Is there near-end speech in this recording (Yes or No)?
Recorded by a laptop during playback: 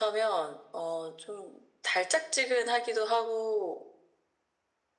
No